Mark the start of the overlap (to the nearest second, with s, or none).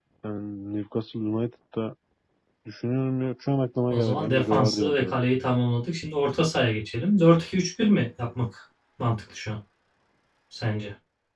4 s